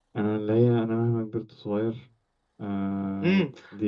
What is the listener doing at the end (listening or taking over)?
taking over